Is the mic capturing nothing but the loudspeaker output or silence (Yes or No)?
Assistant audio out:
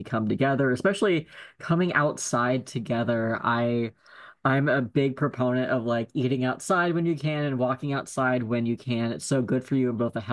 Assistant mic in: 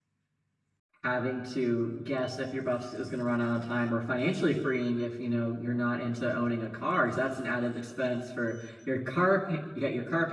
No